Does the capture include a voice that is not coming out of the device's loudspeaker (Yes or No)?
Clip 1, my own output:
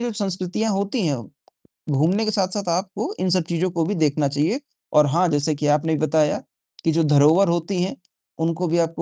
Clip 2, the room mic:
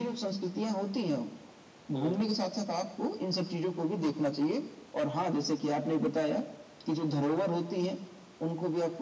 Yes